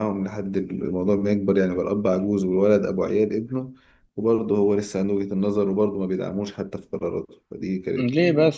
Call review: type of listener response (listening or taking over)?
taking over